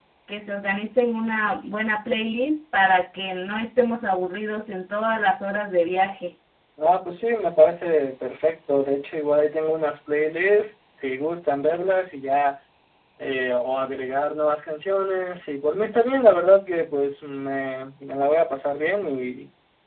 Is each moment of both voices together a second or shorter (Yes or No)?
Yes